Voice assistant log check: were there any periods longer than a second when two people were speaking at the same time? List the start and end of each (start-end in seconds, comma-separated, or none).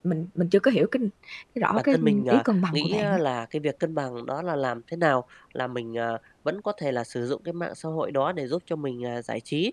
1.8-3.2